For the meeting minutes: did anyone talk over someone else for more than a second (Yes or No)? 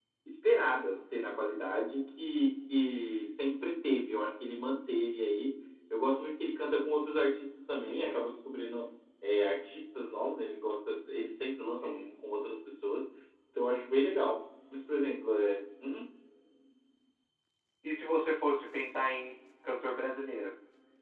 No